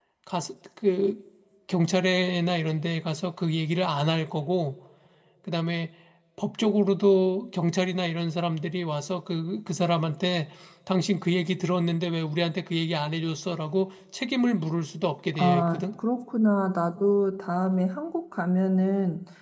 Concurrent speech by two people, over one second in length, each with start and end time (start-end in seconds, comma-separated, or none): none